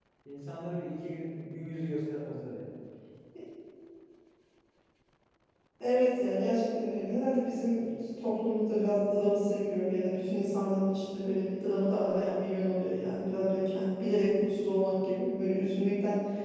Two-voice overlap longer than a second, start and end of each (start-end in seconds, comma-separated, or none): none